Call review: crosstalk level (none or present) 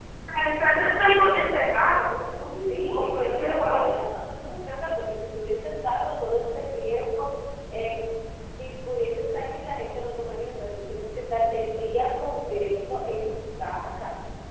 present